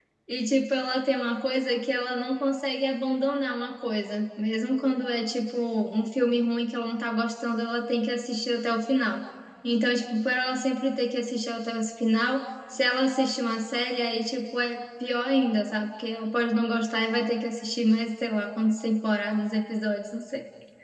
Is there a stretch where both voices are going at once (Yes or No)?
No